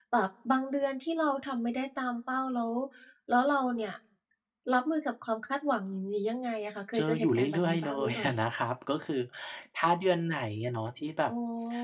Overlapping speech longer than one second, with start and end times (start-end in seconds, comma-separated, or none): 6.9-8.3